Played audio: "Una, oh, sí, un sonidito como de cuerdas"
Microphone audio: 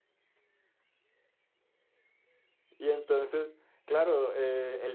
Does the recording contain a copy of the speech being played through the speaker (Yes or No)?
No